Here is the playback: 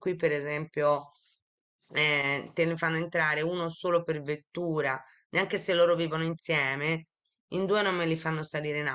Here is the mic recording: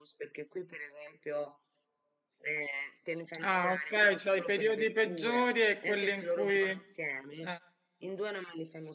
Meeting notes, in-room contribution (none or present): present